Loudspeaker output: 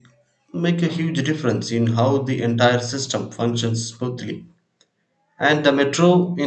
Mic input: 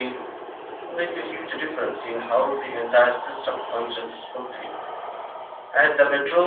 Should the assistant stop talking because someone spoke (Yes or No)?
No